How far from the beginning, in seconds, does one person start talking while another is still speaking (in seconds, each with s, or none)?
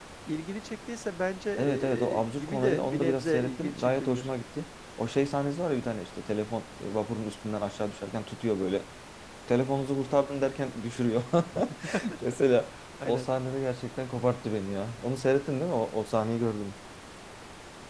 1.6 s